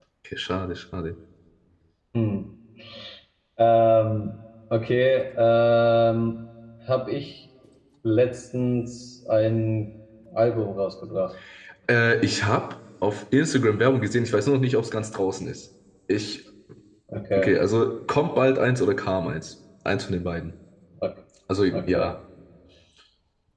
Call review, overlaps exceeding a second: none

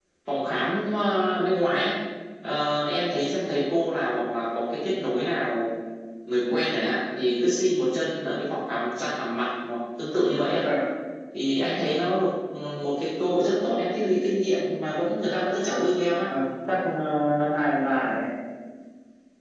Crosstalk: none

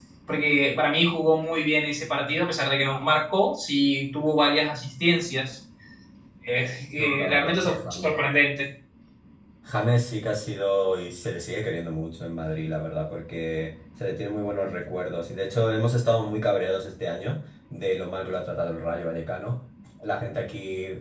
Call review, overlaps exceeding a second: present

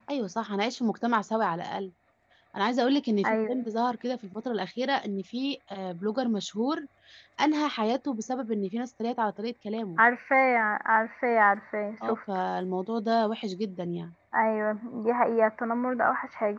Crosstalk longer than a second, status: none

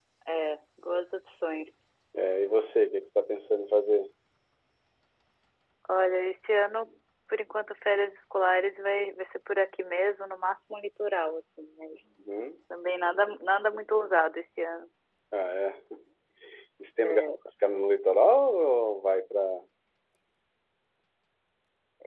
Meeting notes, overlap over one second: none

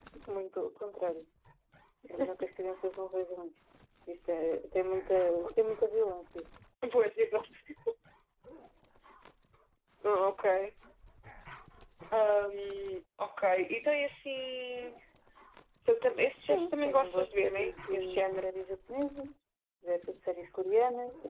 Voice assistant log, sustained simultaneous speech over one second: present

